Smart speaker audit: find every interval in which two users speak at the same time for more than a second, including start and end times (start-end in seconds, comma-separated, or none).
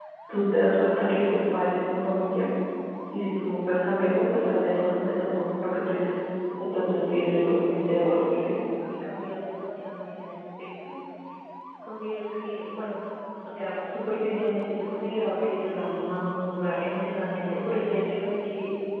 7.1-8.5